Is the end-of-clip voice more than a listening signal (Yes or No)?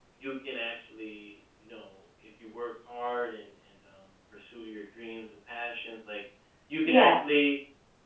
No